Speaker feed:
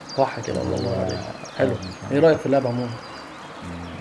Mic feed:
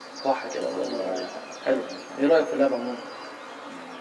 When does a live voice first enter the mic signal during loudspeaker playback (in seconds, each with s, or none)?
none